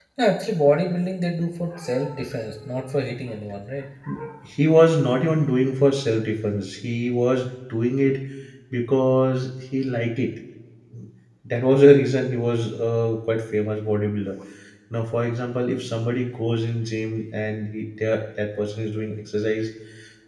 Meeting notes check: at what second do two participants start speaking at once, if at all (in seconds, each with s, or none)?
none